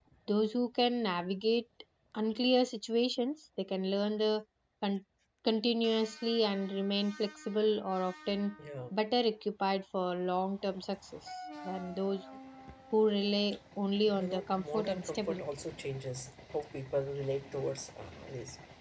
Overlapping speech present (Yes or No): Yes